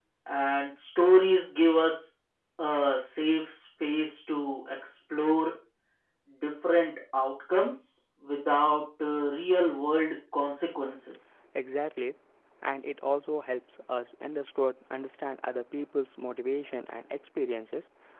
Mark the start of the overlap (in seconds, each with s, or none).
none